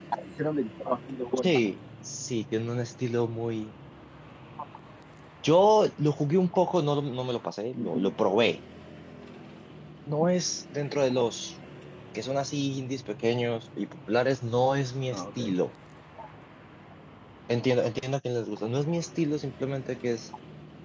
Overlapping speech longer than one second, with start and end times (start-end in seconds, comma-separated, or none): none